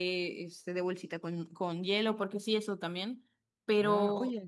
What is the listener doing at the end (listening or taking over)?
taking over